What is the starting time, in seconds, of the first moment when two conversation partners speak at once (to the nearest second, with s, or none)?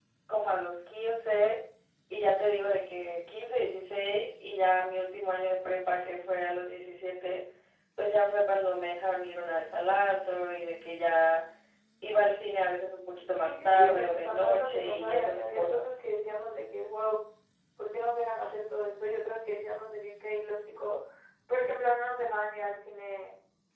13 s